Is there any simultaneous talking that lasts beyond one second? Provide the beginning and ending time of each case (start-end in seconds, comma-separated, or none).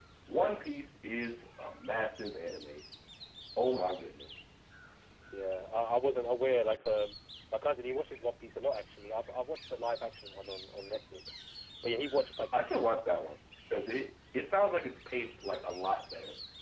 none